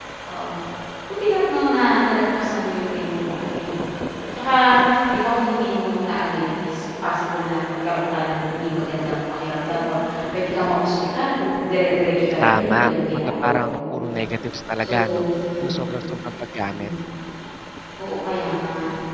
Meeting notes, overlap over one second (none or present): present